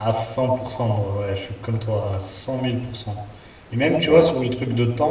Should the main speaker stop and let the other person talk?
No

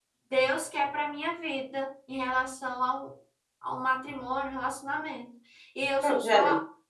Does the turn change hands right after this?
No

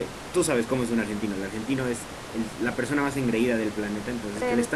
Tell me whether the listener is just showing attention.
Yes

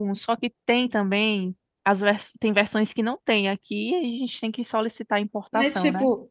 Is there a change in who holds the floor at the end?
Yes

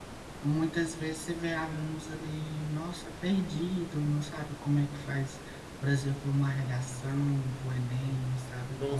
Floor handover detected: Yes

